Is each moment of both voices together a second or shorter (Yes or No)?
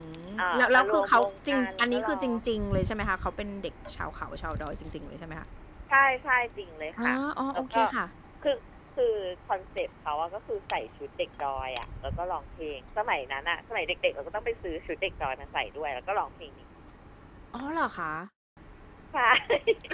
No